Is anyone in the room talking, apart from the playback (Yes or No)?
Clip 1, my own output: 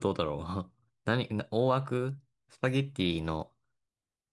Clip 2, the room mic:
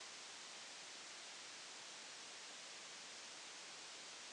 No